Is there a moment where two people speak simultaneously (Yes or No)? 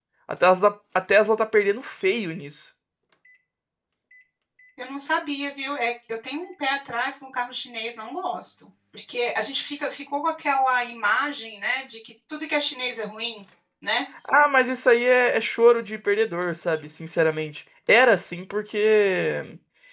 No